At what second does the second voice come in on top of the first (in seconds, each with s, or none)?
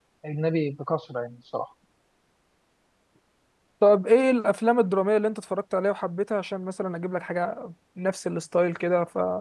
none